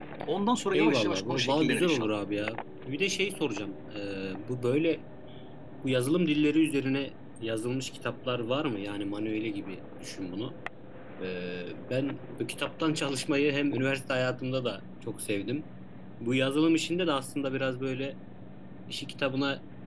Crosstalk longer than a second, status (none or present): present